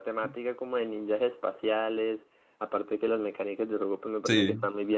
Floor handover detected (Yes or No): Yes